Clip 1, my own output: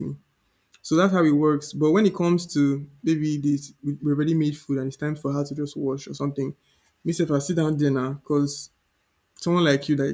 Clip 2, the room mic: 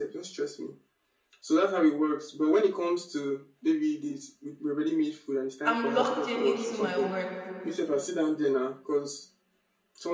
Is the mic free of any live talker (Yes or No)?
No